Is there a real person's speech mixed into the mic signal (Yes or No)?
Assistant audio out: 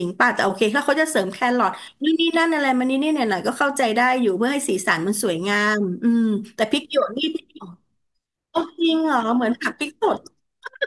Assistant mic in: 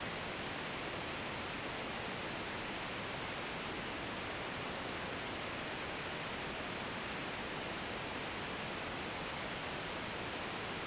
No